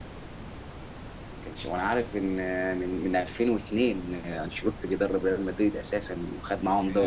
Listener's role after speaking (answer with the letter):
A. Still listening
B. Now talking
B